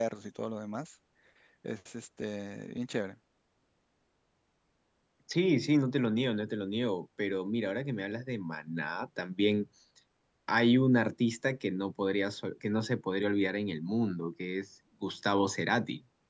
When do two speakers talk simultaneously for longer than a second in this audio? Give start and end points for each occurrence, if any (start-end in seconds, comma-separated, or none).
none